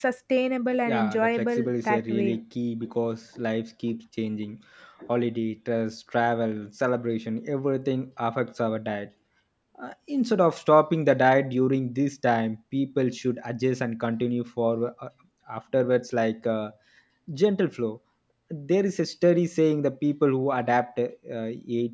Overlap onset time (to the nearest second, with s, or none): 1 s